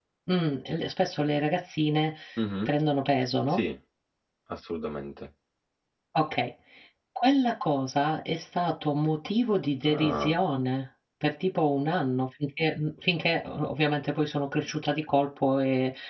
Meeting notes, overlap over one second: none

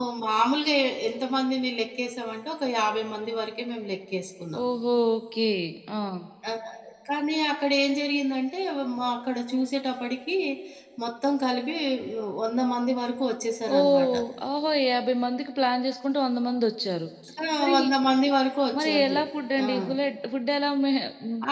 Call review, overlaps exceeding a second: none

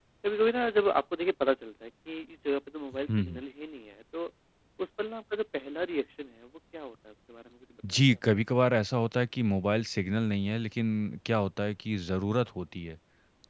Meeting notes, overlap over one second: none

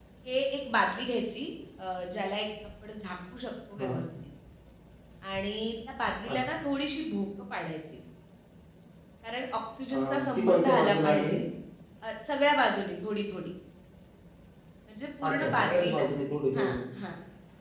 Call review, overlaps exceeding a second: present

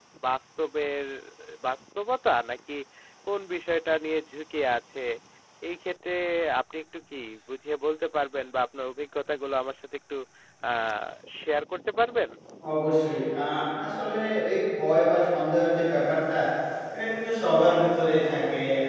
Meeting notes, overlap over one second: none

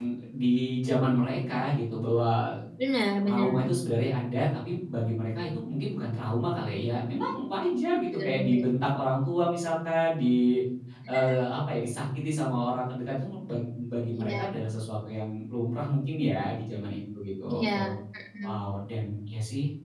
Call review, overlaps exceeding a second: none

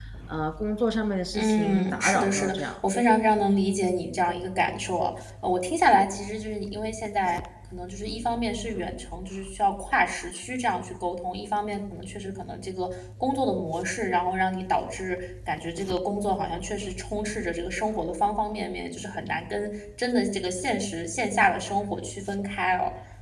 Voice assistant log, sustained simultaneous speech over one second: present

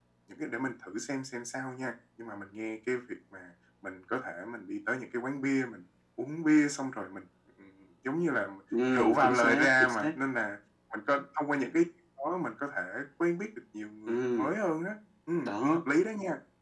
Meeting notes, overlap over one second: present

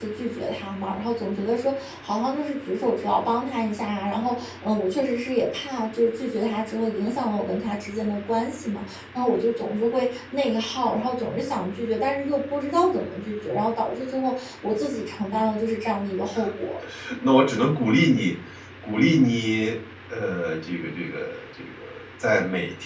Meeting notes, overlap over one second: none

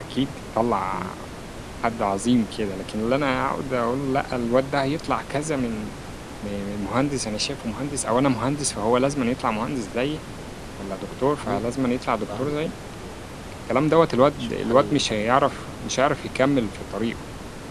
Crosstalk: present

